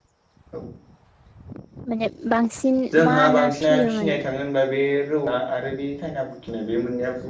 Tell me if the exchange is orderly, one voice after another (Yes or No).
No